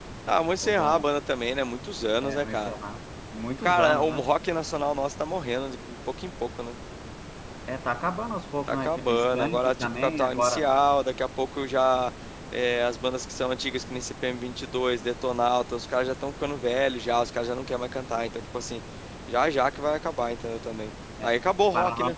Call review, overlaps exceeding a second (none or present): present